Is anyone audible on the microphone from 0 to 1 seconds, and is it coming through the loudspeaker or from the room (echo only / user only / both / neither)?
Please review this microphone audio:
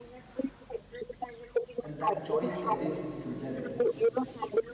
echo only